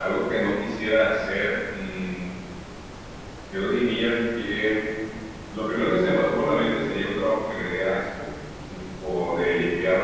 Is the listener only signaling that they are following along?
Yes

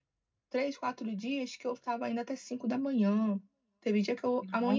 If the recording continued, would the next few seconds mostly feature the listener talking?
No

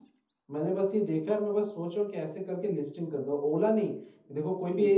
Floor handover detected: No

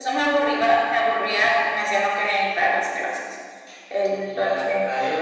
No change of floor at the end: No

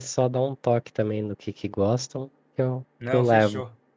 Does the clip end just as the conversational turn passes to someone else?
Yes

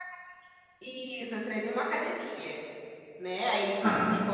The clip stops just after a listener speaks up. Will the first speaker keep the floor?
Yes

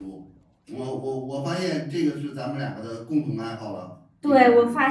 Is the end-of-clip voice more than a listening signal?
Yes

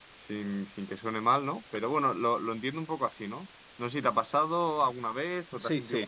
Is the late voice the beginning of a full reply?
Yes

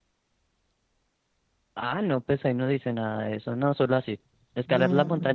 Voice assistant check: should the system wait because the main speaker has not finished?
Yes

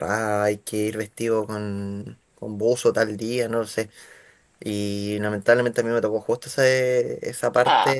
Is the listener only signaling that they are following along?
Yes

